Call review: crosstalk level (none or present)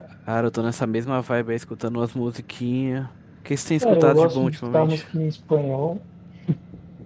present